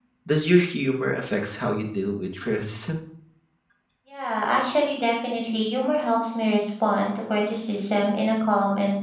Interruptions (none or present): none